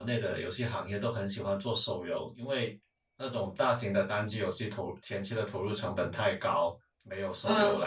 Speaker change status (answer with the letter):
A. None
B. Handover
A